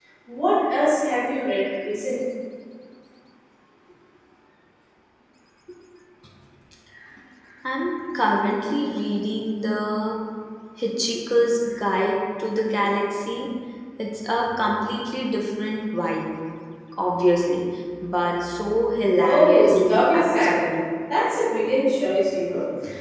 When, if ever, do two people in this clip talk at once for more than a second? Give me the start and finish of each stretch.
19.2-20.7

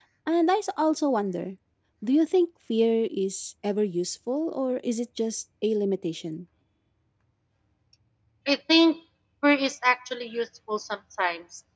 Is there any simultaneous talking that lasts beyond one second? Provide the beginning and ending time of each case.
none

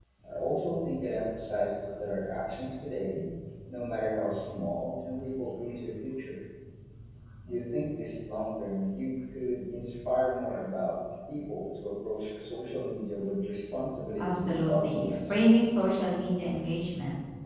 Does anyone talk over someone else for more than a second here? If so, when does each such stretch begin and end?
14.2-15.4

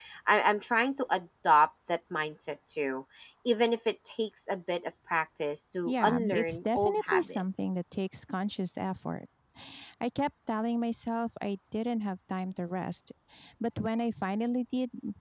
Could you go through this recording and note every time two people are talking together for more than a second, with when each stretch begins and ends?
5.9-7.7

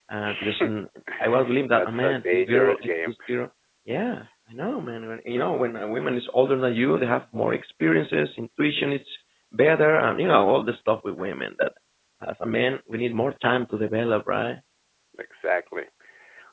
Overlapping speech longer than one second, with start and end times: 1.7-3.1

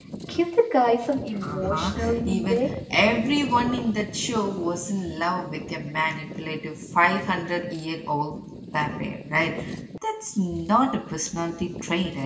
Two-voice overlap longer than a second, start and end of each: 1.4-2.6

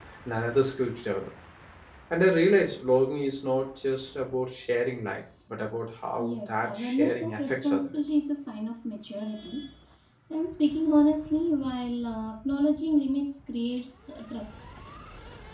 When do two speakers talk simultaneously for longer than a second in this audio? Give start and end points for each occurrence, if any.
6.2-8.0

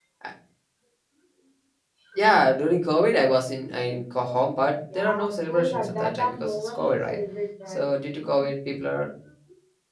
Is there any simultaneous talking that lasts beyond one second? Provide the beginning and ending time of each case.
4.9-7.2

